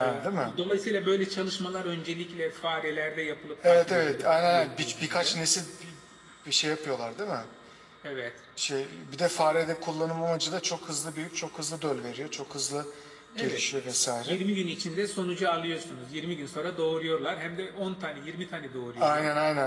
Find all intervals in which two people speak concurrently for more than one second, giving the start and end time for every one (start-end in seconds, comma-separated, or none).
3.6-5.4